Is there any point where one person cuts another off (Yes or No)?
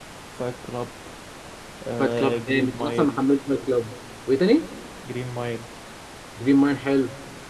Yes